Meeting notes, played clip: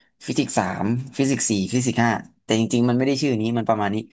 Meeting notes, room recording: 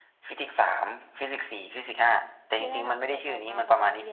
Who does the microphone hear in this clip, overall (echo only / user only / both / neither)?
both